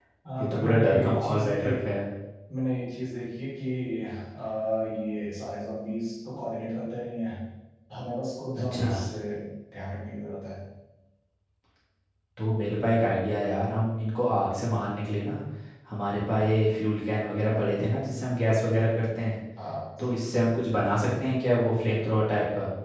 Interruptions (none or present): present